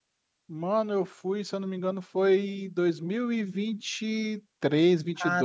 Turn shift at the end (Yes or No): Yes